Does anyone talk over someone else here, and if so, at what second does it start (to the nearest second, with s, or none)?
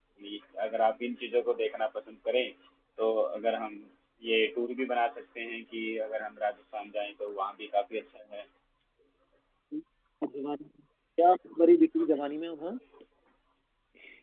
none